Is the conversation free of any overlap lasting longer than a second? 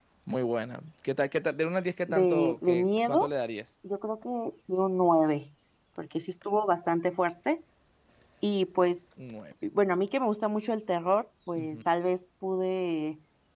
No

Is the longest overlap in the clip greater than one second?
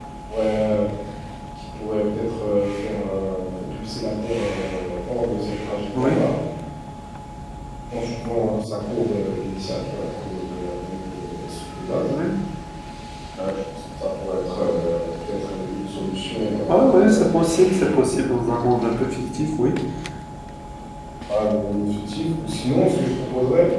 Yes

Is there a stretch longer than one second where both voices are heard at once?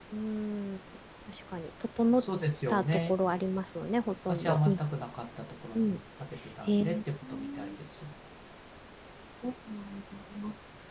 No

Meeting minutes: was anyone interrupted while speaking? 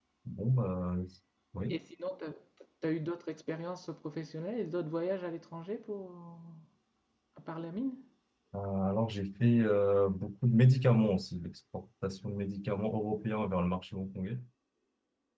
No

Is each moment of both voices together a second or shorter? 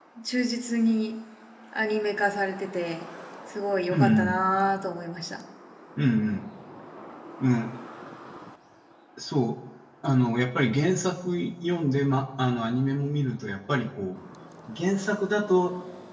Yes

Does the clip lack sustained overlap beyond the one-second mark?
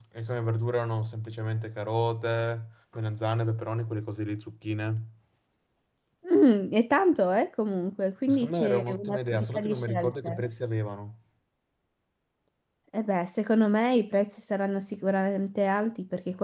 No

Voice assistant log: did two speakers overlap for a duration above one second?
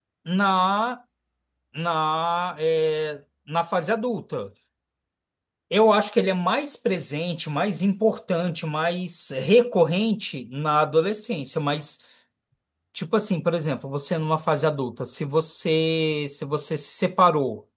No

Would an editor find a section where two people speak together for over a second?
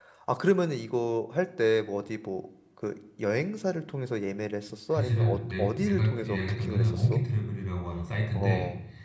Yes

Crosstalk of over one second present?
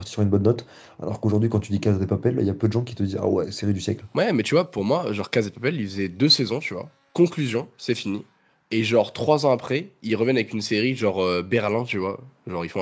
No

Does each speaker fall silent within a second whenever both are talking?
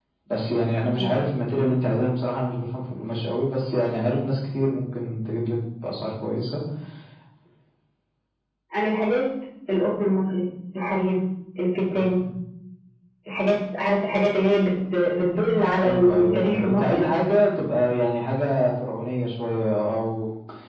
No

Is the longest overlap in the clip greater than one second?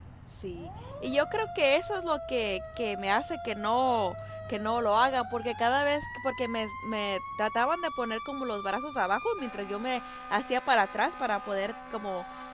No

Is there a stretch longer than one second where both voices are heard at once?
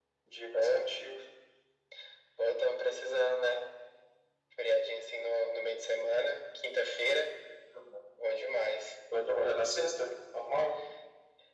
No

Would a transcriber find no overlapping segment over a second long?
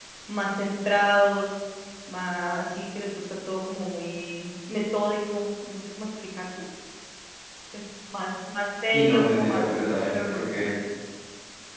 No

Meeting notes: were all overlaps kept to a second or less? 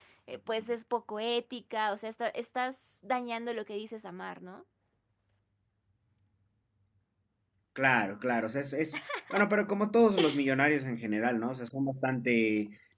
Yes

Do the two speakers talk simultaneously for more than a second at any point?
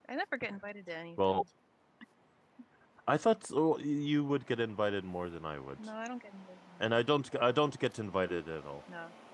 No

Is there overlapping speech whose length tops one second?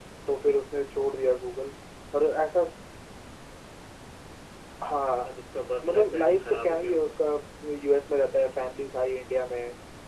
Yes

